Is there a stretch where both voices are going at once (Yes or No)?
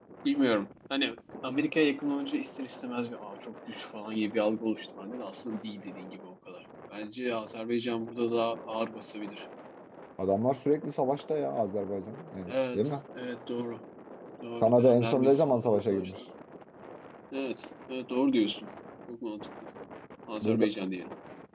Yes